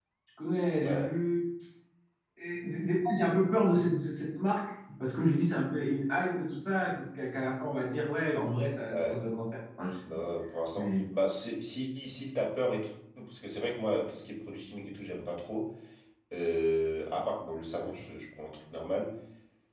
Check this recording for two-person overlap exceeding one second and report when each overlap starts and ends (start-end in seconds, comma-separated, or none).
none